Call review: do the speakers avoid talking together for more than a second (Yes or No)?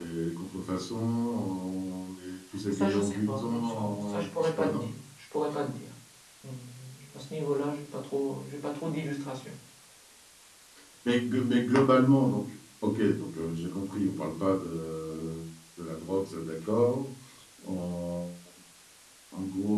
No